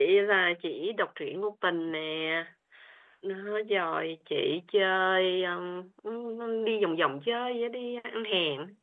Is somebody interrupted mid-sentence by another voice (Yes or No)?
No